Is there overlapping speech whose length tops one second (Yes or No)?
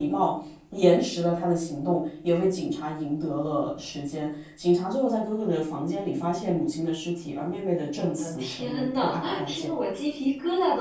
Yes